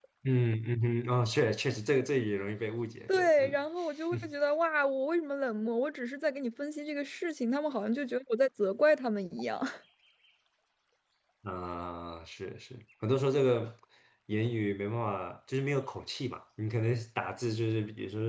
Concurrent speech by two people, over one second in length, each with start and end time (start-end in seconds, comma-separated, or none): none